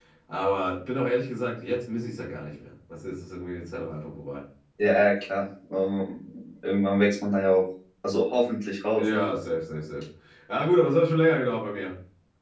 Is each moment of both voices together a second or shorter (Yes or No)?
Yes